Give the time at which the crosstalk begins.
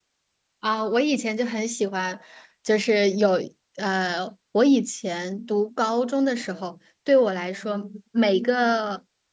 none

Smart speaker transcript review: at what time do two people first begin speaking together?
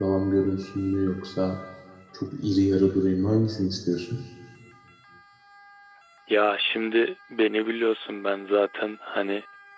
none

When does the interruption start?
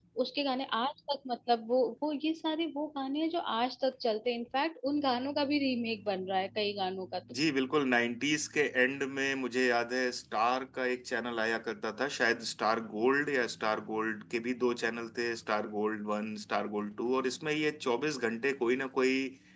none

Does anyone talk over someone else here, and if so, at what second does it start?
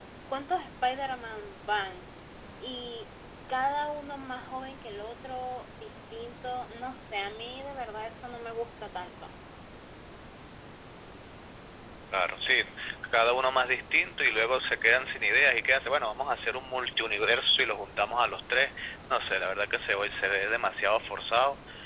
none

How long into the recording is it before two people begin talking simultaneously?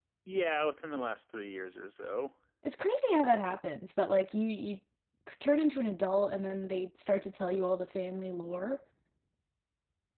none

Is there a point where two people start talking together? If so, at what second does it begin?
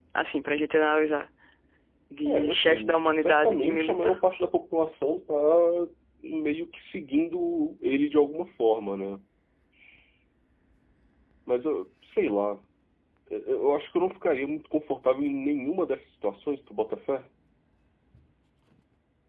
2.2 s

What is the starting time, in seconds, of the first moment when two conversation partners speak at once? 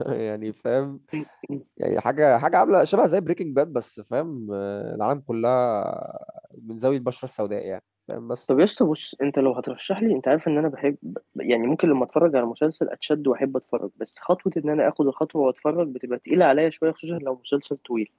none

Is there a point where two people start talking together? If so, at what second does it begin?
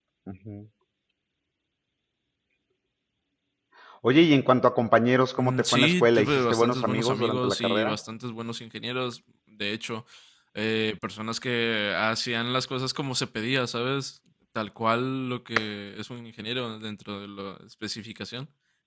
5.4 s

